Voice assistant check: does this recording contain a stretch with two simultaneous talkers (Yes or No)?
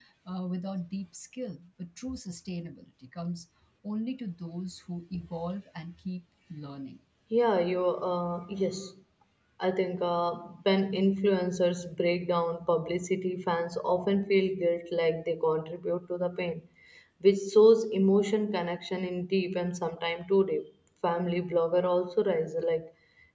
No